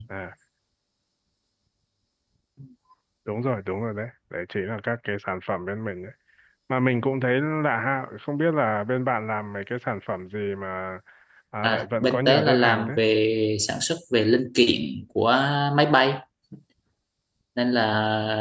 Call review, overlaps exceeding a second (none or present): present